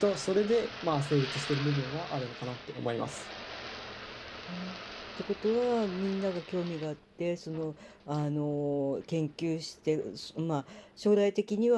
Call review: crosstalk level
none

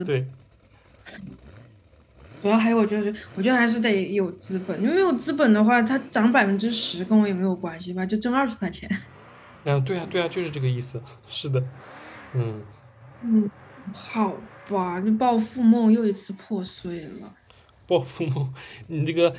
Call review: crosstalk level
none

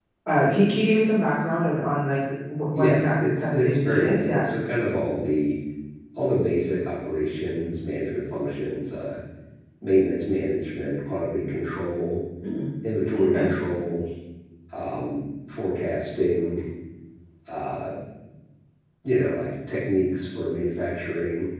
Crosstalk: present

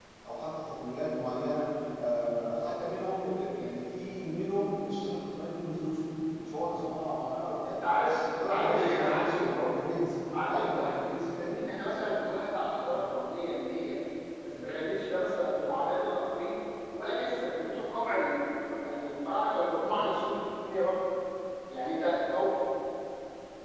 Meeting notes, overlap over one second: present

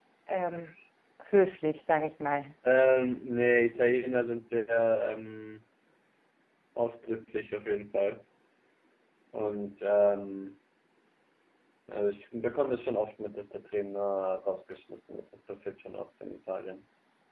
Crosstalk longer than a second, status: none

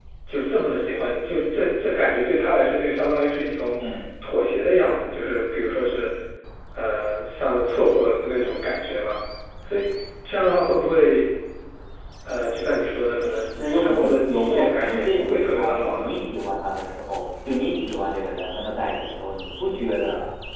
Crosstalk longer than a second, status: present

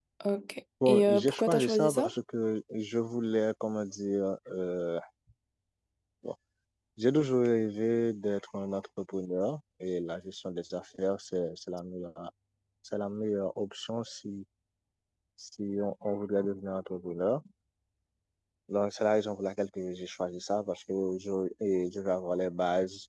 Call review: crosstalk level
present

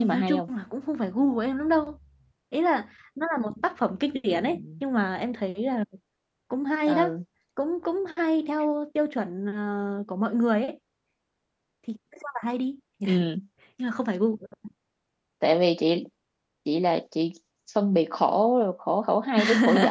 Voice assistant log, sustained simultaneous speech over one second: none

